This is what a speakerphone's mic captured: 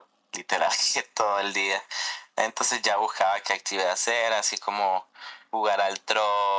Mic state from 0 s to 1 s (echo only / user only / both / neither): echo only